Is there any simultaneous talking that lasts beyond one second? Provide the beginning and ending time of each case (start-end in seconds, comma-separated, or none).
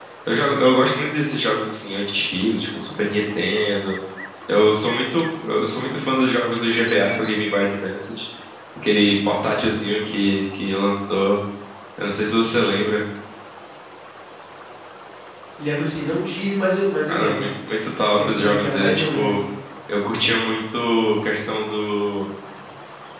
18.1-19.4